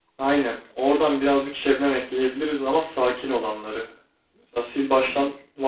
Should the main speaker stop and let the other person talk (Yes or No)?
No